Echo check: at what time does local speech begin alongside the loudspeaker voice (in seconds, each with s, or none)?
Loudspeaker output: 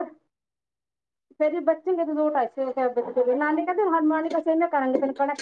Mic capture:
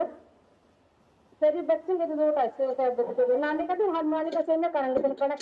none